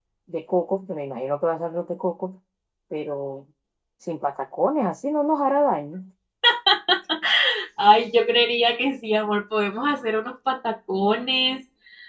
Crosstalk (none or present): none